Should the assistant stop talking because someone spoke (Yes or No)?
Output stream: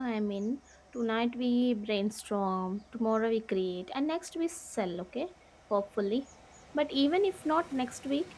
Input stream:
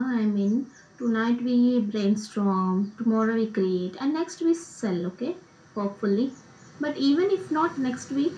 No